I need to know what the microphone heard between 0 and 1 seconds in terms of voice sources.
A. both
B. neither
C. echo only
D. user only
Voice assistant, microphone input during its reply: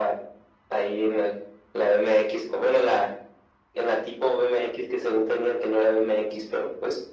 C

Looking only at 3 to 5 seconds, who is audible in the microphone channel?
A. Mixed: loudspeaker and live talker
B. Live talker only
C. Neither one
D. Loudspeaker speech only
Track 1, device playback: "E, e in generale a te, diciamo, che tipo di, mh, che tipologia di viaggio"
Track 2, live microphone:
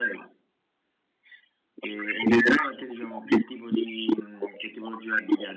D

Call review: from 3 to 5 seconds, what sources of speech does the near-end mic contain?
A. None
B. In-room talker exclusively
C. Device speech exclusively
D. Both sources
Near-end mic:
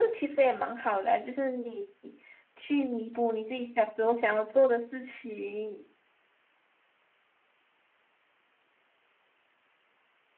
C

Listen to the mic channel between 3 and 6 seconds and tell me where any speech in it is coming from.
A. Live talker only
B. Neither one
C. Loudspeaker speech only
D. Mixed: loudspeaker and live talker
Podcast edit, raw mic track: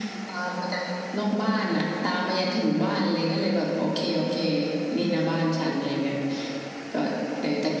C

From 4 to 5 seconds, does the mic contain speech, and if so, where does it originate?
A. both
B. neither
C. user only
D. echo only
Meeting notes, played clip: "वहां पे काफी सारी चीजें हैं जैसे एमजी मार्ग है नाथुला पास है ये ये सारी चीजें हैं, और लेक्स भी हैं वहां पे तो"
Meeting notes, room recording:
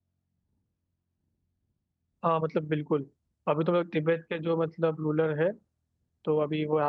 C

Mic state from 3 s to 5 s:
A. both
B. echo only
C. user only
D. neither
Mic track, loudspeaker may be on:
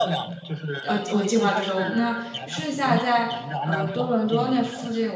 A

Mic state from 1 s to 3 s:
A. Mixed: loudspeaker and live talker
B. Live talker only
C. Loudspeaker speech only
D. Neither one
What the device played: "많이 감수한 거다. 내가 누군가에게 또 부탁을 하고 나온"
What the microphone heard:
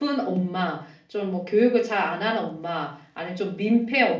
B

